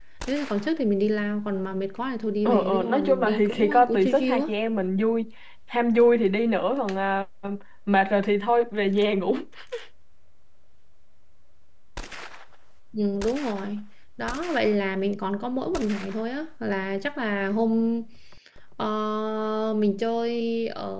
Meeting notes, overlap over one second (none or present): present